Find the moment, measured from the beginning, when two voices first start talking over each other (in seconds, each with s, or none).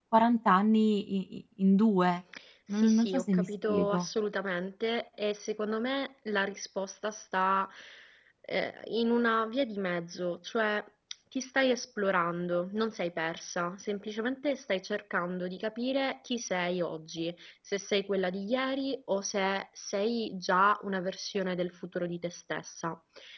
2.7 s